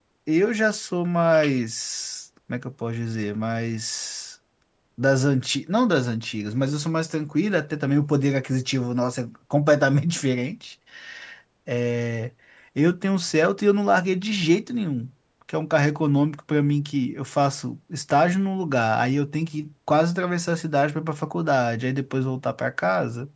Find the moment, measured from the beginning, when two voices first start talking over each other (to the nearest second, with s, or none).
none